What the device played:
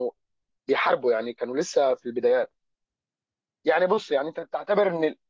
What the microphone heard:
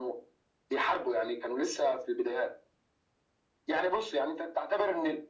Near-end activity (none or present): none